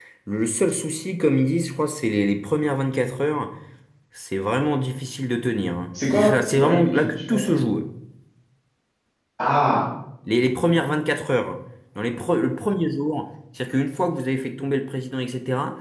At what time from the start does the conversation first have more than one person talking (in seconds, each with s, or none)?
5.9 s